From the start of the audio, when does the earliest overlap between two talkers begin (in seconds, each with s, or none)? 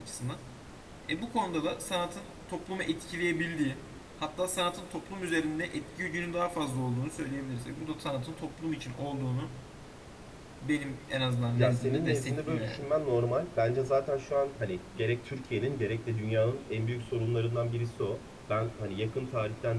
11.5 s